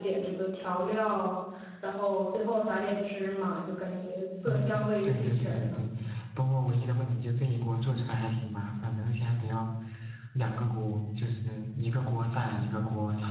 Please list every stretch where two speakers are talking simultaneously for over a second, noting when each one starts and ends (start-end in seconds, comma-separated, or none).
4.4-5.8